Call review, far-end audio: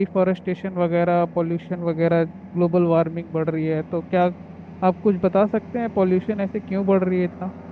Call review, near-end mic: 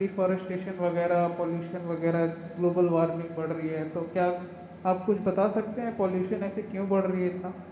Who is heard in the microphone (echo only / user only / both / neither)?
echo only